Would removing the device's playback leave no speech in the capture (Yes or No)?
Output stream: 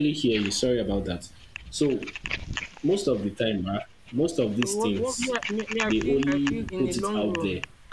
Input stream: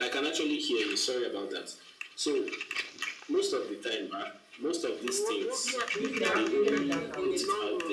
No